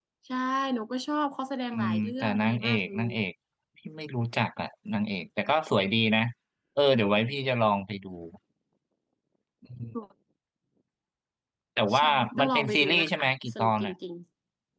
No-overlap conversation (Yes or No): No